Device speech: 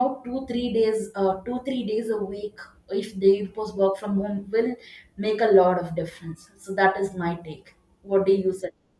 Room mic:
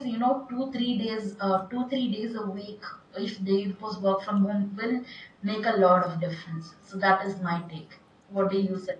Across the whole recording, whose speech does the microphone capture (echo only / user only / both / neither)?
echo only